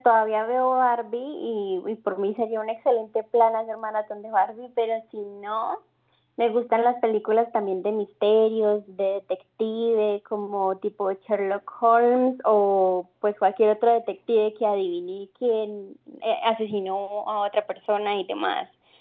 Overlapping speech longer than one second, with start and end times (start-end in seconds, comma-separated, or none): none